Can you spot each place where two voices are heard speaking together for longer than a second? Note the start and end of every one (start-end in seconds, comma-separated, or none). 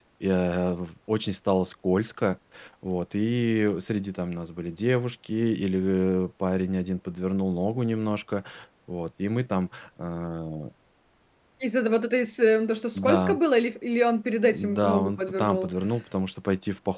14.5-15.7